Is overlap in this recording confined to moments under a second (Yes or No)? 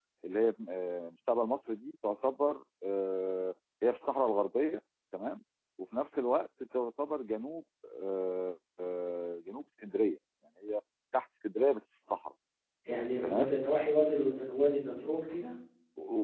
Yes